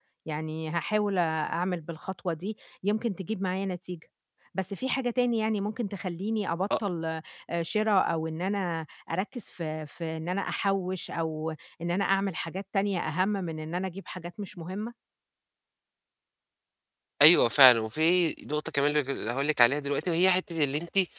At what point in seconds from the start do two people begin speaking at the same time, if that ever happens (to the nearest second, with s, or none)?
none